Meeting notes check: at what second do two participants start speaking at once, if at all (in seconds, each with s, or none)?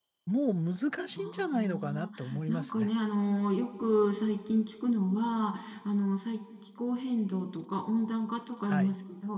1.2 s